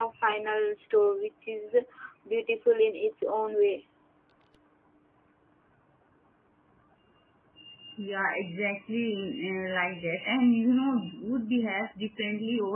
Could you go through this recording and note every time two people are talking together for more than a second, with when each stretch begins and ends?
none

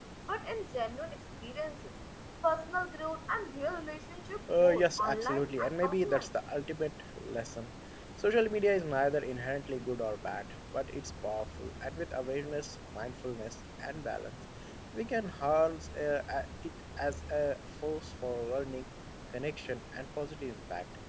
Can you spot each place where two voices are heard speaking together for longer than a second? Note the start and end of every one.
4.6-6.3

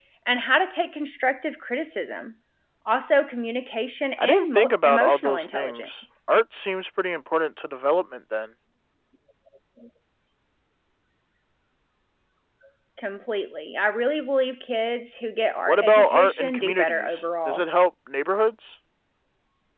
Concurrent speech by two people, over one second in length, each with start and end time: 4.2-5.9, 15.7-17.6

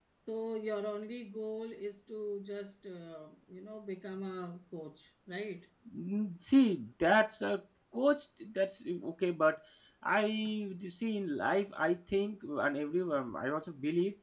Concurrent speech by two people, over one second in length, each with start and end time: none

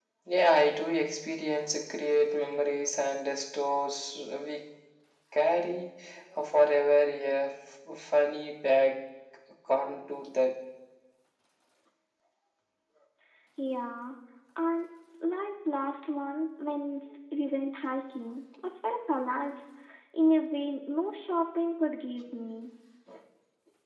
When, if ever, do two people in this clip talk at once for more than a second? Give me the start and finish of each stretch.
none

